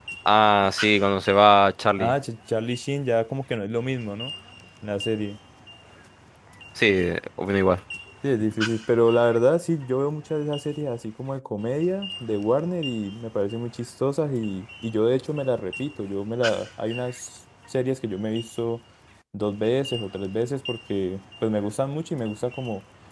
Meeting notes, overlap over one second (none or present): none